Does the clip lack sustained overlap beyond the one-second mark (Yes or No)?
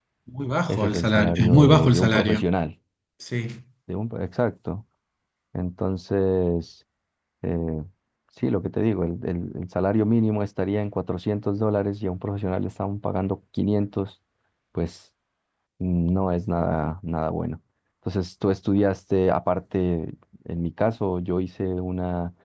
No